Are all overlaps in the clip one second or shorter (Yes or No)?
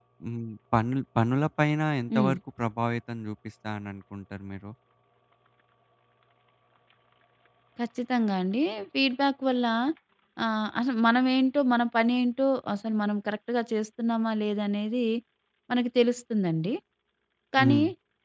Yes